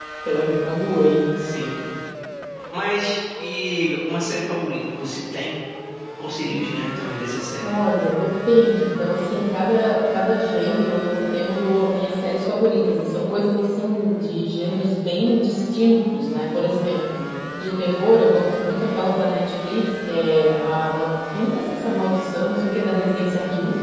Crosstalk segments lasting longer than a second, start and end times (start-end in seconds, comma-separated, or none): none